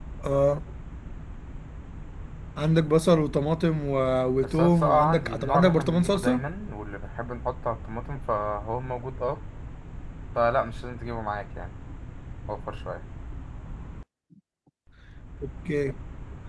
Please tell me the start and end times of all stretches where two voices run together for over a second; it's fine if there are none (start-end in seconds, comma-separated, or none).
4.4-6.4